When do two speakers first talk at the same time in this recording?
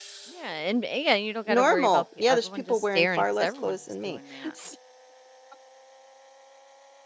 1.5 s

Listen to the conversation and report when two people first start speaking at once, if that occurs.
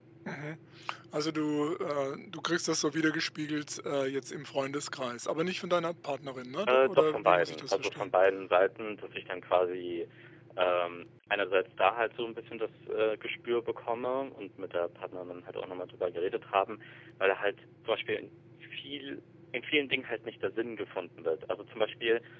6.7 s

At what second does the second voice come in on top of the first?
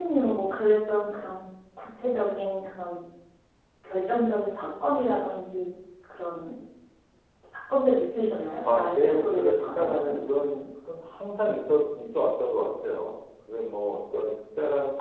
8.7 s

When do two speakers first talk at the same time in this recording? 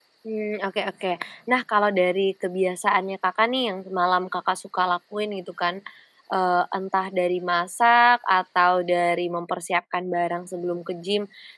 none

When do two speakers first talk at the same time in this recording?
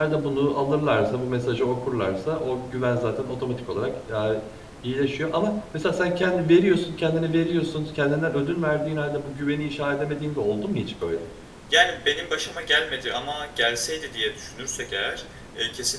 none

